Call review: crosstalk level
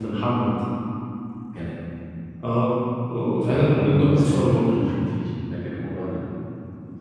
present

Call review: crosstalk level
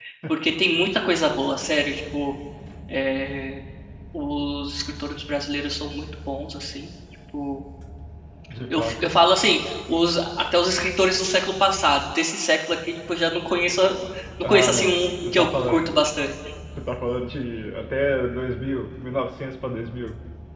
present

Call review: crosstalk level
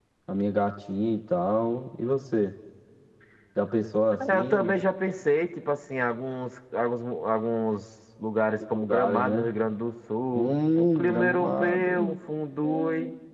present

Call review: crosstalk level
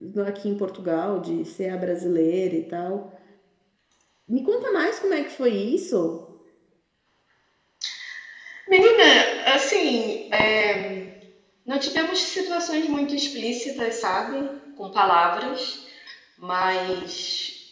none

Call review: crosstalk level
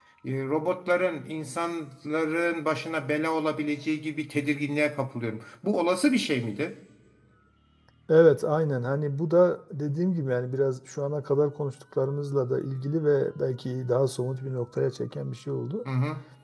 none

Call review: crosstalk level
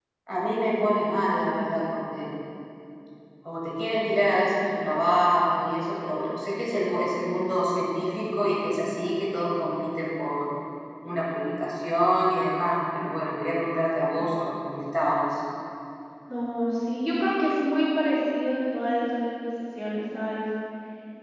none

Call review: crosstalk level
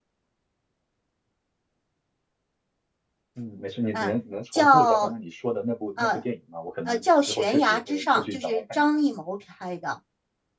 present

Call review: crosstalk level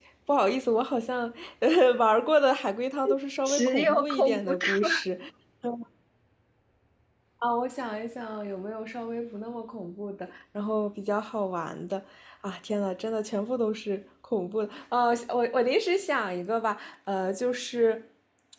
present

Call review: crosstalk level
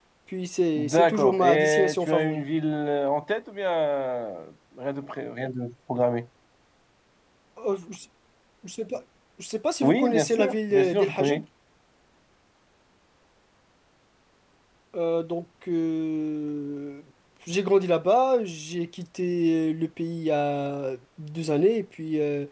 present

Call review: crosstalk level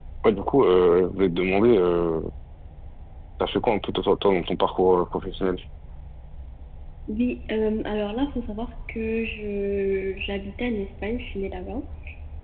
none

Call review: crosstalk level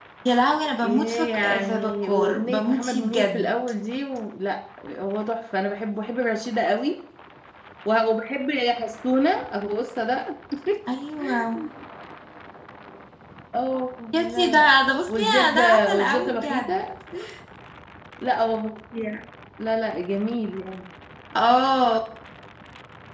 present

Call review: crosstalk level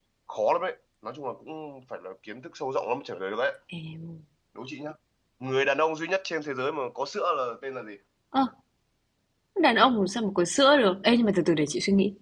none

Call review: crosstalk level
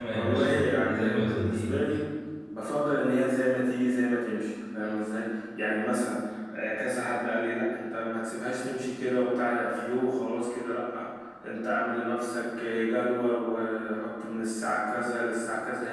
present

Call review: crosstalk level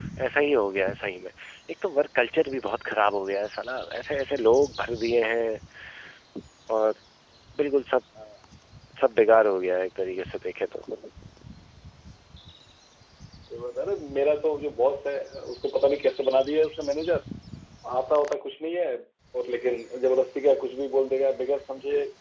none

